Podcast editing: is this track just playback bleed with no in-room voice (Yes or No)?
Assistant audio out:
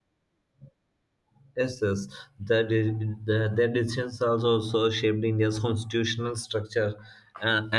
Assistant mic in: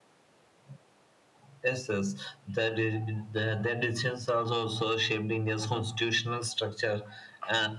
Yes